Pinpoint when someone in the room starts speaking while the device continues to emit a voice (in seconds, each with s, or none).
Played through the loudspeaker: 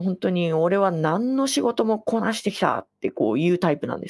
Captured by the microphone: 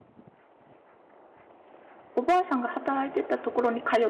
2.1 s